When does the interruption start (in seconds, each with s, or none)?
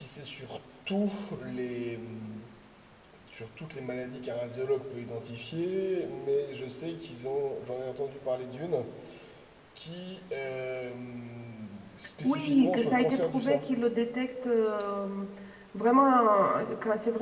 12.2 s